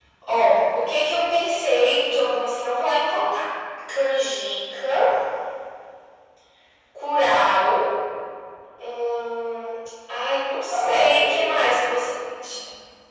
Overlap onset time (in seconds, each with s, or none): 10.7 s